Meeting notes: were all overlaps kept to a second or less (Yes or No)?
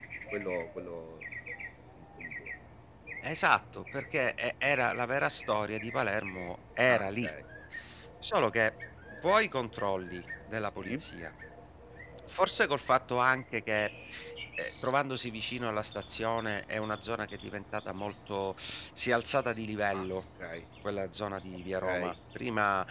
Yes